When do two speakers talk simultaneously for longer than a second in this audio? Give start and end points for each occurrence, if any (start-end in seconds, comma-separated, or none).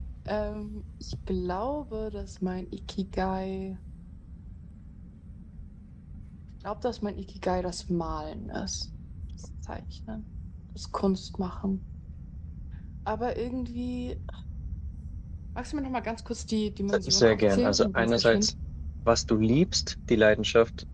17.1-18.5